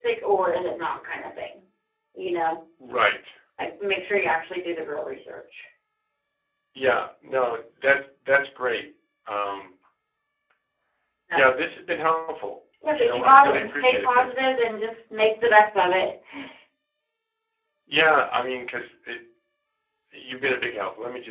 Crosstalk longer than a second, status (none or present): present